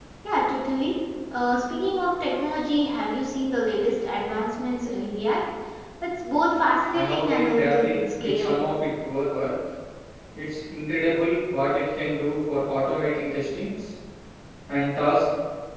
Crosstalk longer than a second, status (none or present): present